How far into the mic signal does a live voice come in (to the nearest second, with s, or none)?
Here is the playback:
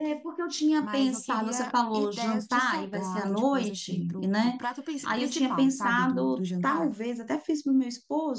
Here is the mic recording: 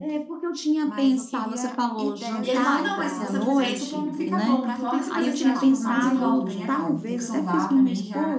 2 s